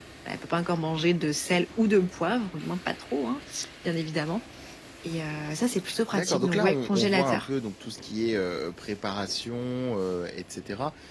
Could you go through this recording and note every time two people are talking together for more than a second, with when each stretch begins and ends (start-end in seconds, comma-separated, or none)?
6.1-7.5